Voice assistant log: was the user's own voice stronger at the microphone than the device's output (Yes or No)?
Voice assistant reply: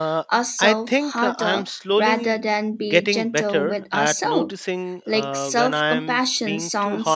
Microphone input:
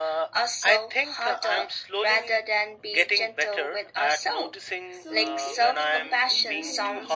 No